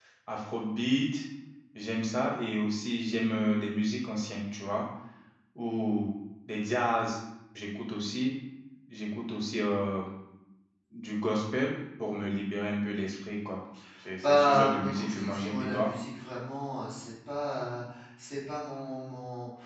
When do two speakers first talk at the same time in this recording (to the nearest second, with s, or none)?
14 s